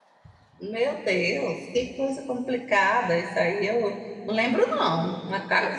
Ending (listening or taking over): listening